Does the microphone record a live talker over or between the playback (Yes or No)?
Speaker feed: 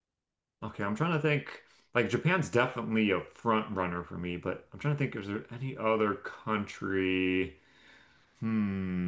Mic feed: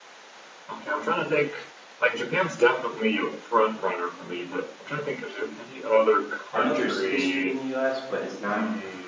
Yes